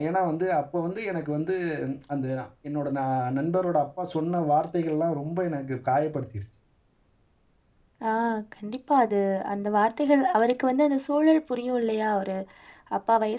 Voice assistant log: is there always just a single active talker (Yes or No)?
Yes